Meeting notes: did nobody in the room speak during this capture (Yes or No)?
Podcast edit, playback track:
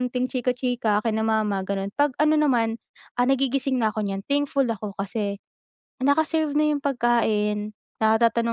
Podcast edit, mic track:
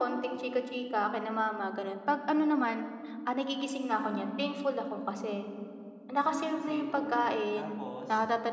No